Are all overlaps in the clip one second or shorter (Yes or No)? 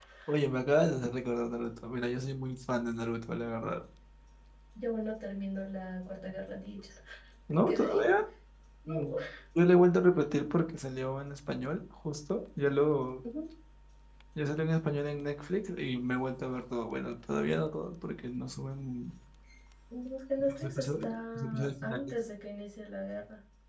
No